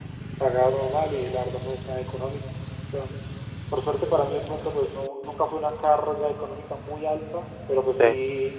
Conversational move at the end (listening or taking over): listening